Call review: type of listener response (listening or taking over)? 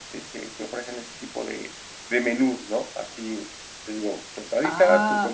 taking over